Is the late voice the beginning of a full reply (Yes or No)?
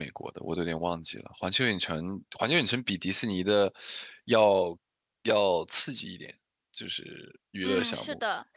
Yes